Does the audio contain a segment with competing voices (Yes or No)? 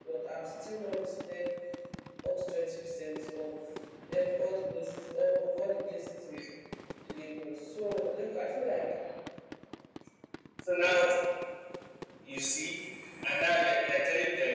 No